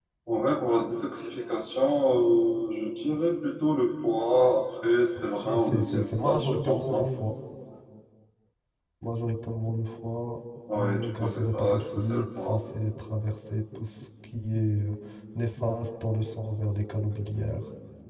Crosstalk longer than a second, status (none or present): present